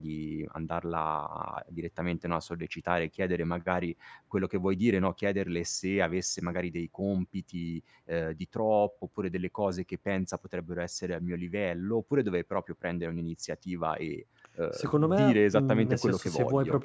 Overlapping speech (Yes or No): Yes